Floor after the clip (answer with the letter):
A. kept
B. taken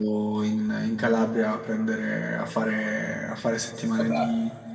A